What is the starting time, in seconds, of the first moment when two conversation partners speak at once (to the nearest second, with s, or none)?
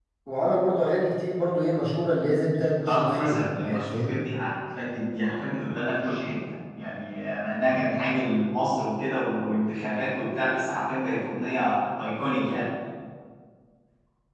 3 s